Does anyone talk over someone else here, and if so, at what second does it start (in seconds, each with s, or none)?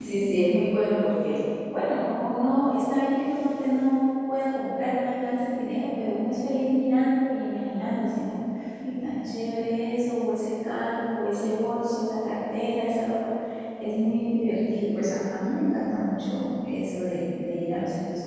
none